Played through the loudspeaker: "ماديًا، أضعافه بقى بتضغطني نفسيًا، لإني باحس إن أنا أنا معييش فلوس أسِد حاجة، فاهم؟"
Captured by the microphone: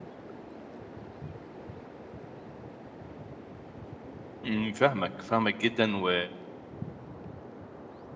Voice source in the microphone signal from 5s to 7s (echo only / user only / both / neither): user only